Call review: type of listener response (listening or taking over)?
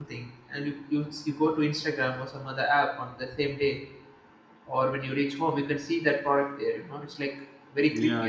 taking over